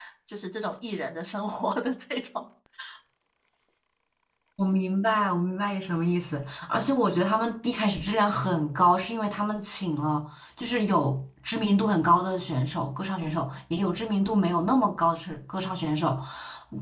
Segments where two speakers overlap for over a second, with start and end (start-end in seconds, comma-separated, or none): none